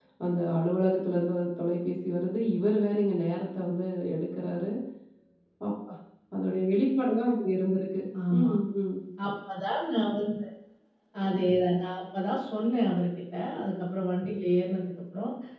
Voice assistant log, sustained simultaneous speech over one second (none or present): none